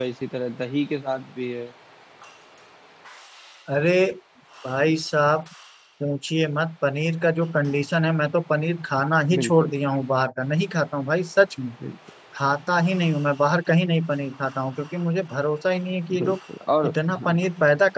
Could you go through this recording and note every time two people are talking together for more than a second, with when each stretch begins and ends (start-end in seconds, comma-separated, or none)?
none